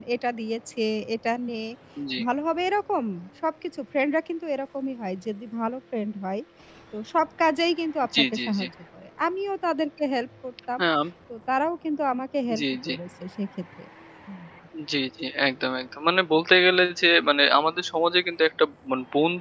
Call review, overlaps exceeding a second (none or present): none